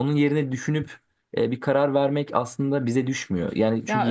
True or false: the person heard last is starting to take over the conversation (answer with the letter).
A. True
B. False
A